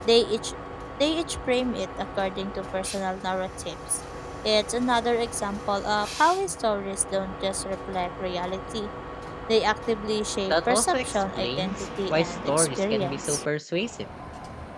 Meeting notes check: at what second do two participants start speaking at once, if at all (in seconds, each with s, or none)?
10.5 s